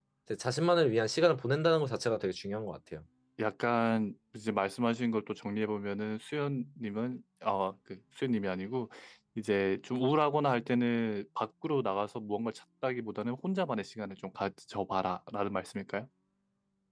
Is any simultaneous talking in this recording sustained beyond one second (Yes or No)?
No